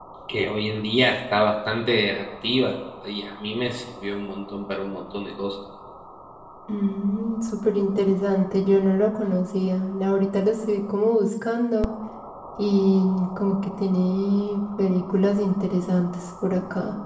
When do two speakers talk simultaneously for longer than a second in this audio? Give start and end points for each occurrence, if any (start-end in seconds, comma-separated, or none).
none